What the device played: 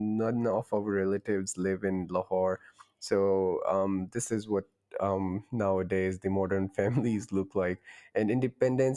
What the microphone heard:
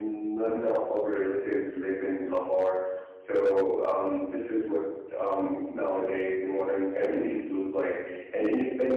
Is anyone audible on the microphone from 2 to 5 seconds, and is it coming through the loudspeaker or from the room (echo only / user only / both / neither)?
echo only